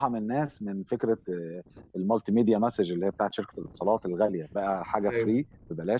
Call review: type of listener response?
listening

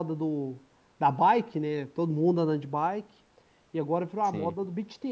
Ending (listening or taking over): listening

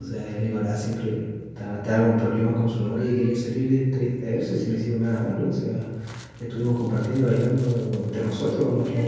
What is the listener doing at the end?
taking over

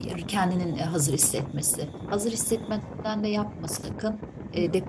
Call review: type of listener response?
listening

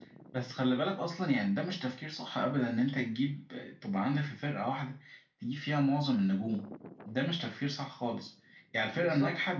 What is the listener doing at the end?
listening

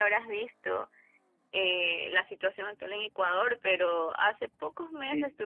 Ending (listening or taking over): listening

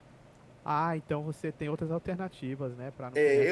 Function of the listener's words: taking over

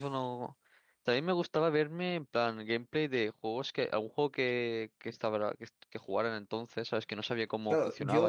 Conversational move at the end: taking over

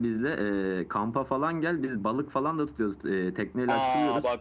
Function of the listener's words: taking over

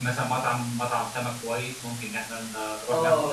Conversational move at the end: taking over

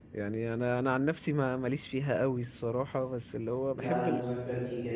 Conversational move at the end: taking over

